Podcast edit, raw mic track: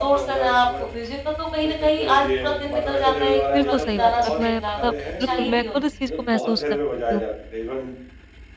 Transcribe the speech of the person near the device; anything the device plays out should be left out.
बिल्कुल सही बात है और मैं मतलब बिल्कुल, मैं खुद इस चीज़ को महसूस कर पाती हूँ।

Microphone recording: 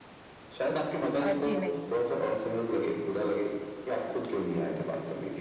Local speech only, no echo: अ, जी नहीं।

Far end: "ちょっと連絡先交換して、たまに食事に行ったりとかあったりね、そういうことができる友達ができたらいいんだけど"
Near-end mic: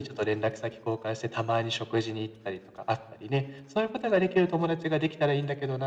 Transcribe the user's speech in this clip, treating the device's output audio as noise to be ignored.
none

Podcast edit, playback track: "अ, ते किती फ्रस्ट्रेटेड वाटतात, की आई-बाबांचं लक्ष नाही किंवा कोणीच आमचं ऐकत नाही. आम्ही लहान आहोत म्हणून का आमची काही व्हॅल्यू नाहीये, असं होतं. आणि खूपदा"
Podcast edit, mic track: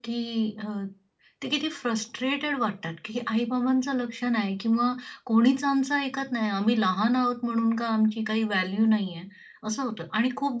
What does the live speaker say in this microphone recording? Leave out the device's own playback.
none

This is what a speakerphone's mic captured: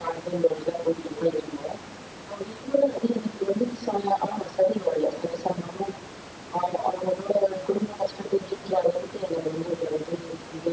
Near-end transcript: none

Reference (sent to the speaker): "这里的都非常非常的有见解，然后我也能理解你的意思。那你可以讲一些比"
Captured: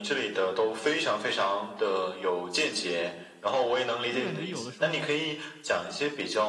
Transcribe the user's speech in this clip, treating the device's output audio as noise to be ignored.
所以感觉有的时候，

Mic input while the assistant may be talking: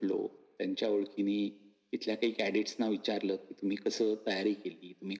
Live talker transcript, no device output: none

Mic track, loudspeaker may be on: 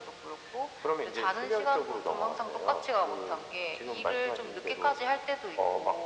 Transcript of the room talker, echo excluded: none

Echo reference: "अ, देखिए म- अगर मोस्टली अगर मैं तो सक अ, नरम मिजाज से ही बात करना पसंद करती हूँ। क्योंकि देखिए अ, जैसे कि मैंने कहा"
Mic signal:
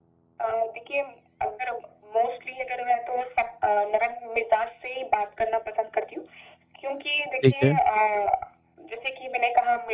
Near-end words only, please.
ठीक है।

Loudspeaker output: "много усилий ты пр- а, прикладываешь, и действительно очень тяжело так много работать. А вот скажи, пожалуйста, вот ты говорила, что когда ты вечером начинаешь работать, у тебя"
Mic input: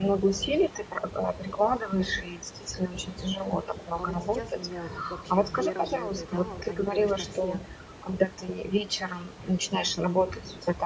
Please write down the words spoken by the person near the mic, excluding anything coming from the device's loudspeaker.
А вот сейчас у меня вообще две работы, да, они, конечно, все

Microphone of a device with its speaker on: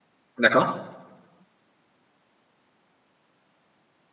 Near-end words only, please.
d'accord,

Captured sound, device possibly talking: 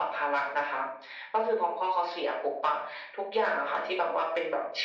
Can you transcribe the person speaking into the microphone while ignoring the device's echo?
none

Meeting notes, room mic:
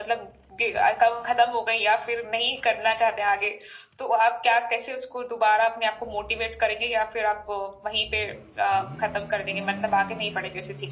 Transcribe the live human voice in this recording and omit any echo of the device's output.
none

